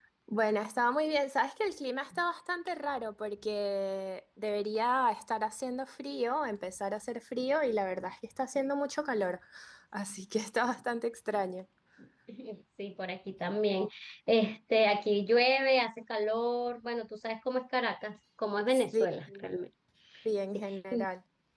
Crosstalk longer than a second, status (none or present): none